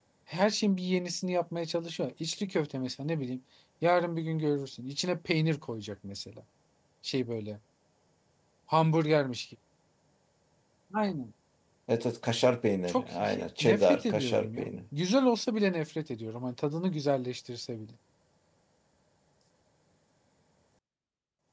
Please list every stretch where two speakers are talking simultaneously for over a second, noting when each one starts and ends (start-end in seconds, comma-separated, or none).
12.9-14.7